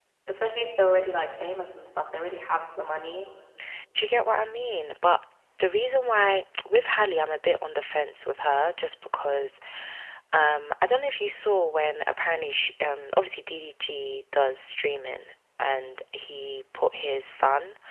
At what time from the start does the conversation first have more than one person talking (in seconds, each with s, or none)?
none